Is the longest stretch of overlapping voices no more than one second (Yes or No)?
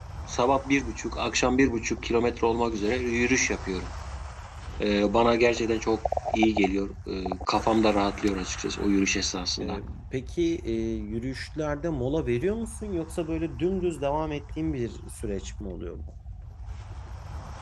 Yes